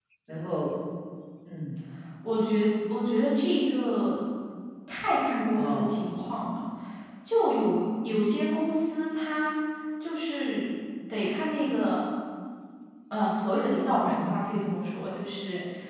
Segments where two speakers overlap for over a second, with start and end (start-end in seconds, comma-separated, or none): none